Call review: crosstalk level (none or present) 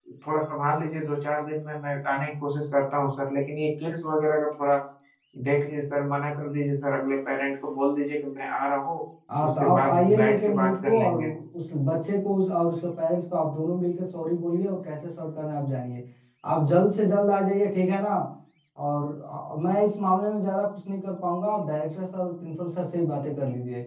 present